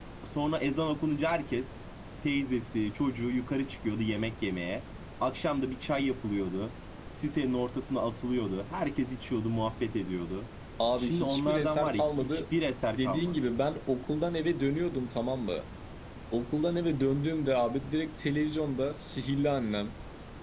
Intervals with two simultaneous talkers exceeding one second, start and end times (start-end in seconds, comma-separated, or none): 11.0-12.4